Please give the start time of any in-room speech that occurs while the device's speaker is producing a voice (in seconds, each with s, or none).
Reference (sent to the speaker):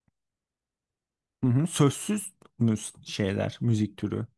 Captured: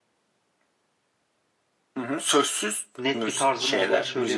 3.0 s